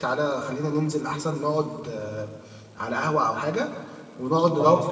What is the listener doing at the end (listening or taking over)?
listening